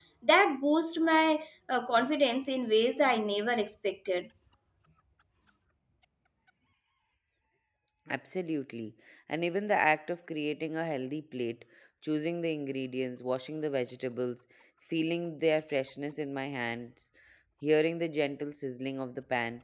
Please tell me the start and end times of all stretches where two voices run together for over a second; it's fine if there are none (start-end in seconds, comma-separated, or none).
none